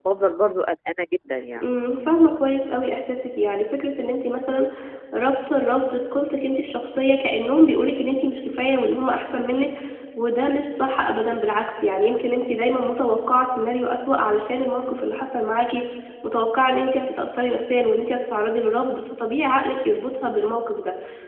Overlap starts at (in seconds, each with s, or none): none